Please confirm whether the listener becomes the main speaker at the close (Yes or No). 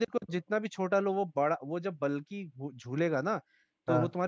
No